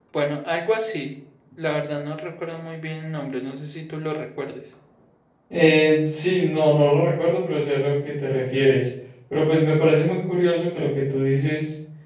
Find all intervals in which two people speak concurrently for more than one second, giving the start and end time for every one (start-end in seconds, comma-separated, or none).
none